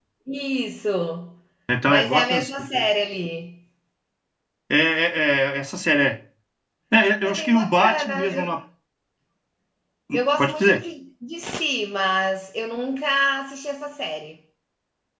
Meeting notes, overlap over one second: present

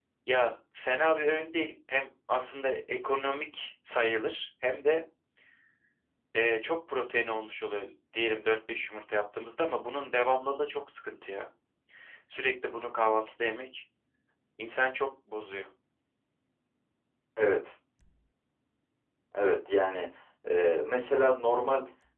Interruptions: none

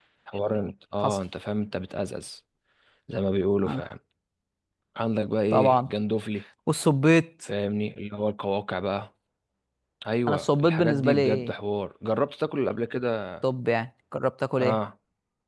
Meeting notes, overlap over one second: present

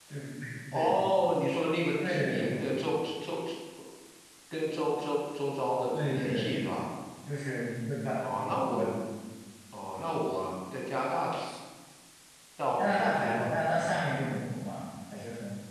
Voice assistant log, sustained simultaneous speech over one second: present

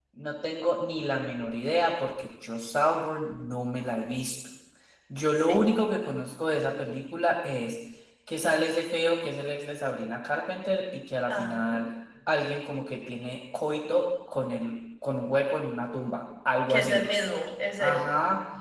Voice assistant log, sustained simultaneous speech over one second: none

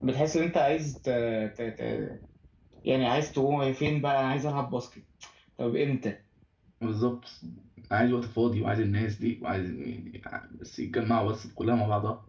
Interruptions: none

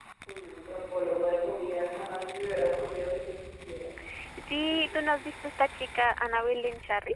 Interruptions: none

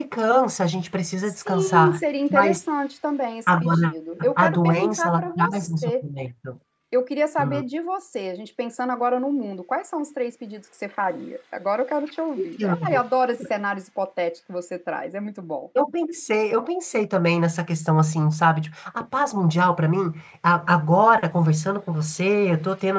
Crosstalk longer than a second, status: present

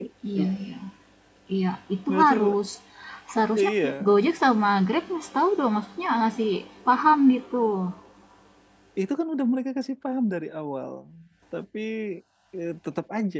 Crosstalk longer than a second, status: none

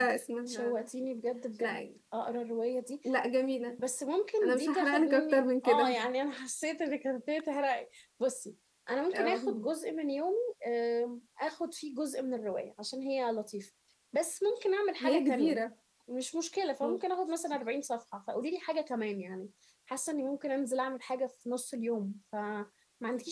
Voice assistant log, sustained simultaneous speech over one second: present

